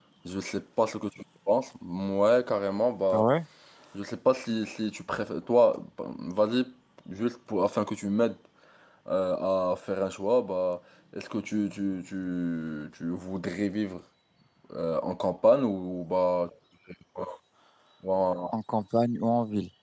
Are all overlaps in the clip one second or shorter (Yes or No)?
Yes